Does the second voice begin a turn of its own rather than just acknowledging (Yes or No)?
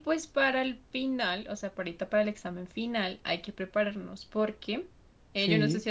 No